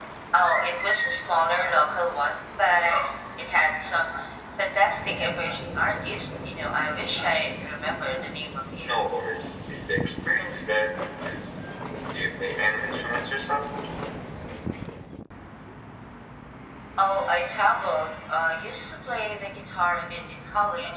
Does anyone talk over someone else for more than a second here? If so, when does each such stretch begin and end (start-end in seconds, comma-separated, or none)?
none